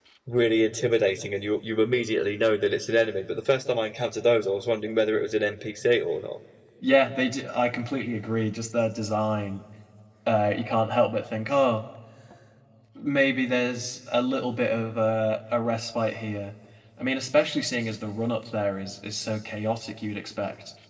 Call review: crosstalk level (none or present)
none